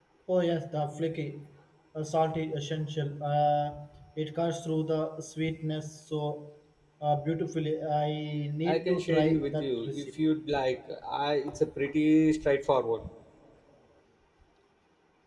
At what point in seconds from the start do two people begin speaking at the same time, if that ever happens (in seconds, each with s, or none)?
8.7 s